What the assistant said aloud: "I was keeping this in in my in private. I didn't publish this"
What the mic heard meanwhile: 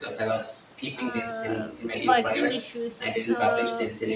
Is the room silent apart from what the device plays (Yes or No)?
No